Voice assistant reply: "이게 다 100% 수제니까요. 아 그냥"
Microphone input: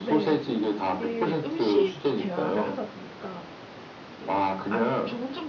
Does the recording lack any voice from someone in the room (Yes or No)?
No